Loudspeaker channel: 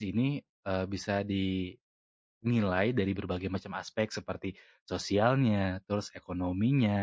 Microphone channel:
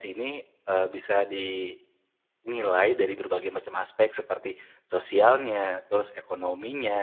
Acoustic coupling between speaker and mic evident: Yes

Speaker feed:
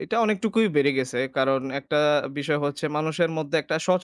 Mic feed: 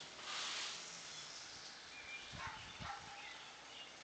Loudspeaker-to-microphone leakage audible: No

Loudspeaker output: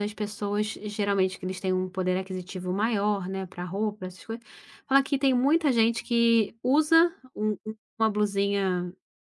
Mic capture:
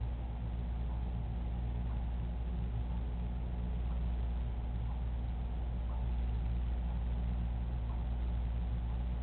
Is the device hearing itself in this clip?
No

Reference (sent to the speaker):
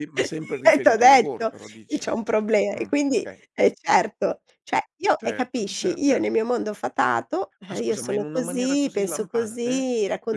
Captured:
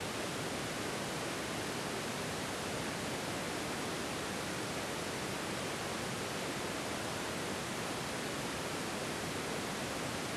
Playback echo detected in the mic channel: No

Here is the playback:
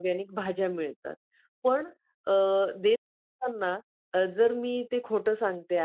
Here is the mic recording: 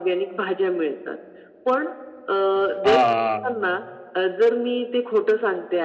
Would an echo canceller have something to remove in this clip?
Yes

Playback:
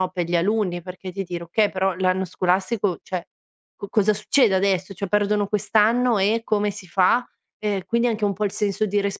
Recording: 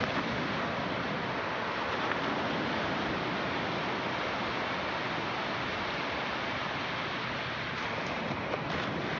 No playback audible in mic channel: Yes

